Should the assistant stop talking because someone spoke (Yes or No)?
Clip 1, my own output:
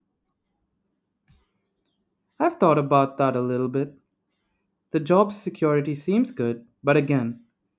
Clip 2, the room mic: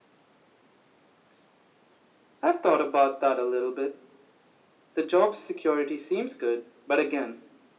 No